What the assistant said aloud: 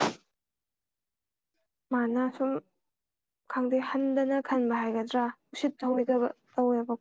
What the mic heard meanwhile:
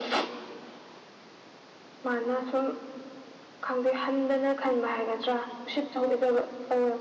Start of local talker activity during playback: none

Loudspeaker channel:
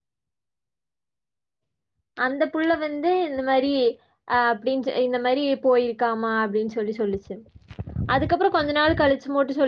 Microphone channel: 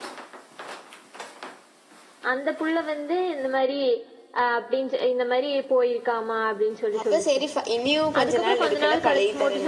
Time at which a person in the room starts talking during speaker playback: 7.0 s

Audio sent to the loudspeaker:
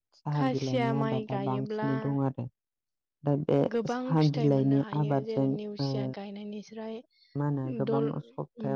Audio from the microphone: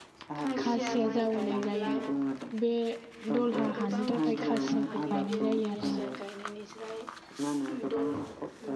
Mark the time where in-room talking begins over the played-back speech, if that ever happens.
0.6 s

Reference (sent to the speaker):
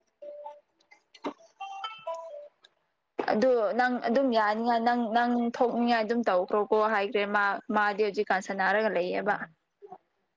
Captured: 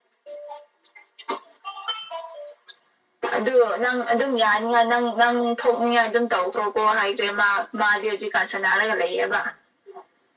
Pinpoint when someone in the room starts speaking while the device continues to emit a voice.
none

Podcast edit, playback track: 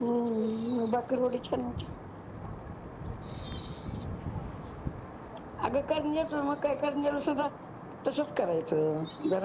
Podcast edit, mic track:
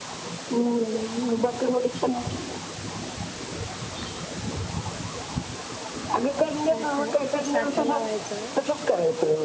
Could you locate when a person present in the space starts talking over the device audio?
6.6 s

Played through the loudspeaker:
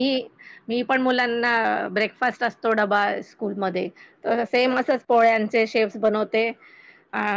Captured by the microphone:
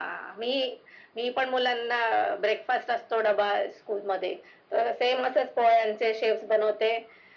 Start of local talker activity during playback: none

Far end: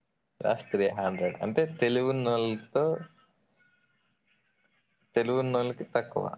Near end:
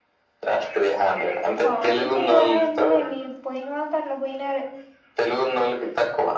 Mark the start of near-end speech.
1.6 s

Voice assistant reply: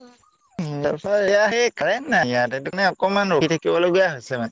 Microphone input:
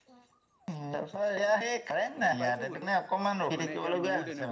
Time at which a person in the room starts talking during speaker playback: 1.5 s

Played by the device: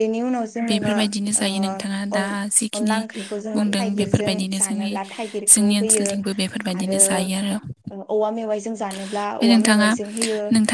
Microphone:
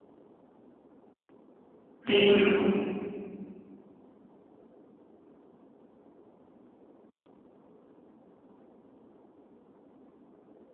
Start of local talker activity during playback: 2.1 s

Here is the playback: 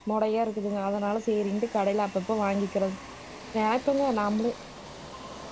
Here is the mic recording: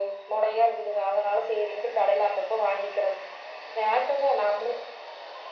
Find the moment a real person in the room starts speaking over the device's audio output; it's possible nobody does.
none

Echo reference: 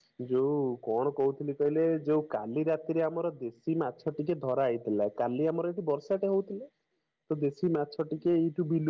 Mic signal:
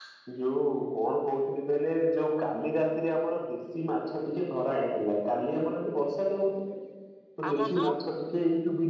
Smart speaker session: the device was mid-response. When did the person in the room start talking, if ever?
7.4 s

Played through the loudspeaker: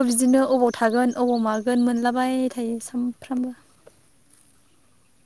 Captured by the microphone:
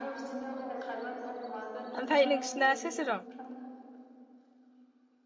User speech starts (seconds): 2.0 s

